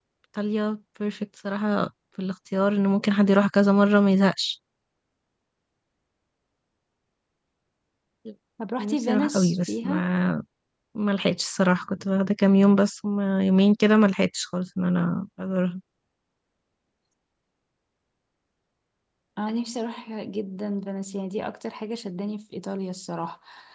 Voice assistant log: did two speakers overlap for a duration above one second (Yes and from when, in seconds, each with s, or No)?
Yes, from 8.8 s